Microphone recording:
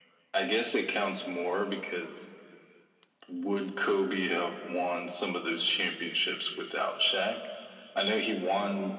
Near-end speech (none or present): none